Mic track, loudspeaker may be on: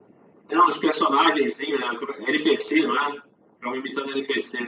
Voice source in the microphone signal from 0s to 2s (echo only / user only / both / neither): echo only